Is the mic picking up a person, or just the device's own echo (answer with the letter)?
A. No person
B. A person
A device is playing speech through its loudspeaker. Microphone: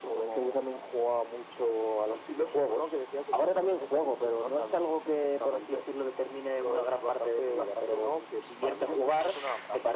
A